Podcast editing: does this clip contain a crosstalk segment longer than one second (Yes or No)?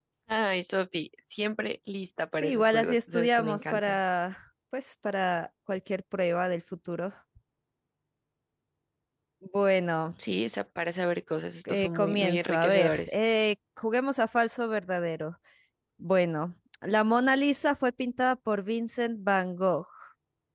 Yes